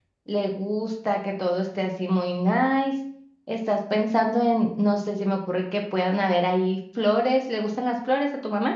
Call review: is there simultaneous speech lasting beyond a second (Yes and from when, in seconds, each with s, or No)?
No